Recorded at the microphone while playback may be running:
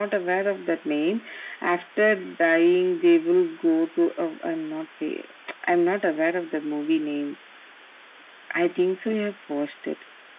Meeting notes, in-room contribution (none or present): none